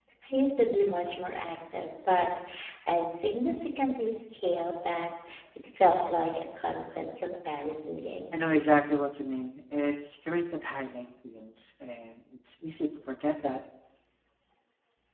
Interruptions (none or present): none